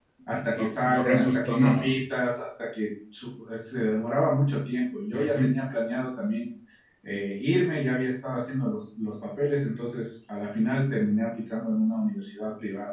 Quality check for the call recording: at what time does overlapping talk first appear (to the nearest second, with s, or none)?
1 s